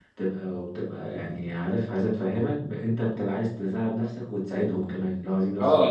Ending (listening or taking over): taking over